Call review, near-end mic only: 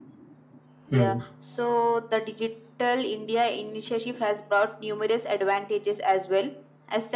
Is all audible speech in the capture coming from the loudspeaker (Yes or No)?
No